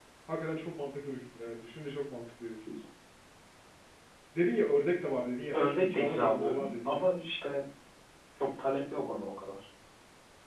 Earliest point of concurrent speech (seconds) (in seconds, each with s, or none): 5.5 s